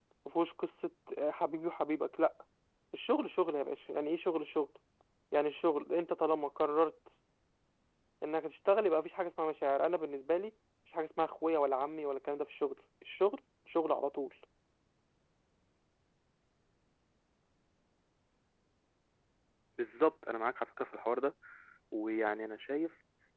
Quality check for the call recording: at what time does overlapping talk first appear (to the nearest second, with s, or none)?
none